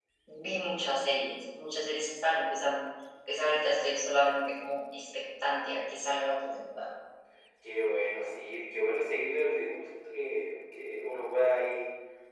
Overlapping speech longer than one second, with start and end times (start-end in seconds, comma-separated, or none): none